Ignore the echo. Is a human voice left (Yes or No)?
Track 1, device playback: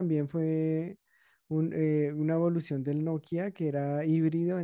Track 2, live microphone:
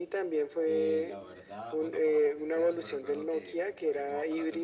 Yes